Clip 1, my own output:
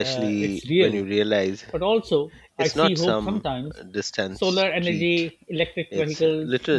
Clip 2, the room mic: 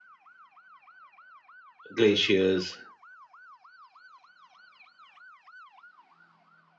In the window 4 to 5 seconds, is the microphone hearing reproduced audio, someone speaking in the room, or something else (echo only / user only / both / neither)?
neither